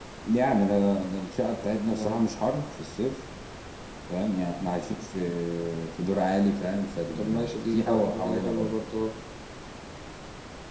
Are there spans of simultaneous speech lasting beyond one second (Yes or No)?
Yes